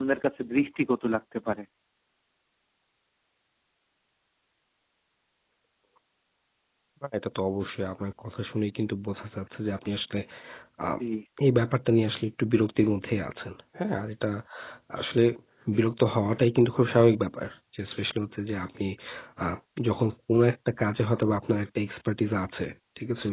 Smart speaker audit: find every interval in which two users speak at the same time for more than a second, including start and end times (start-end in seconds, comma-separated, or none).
none